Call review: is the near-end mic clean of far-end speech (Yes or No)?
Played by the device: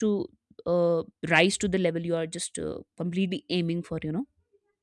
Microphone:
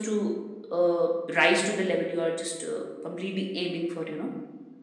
No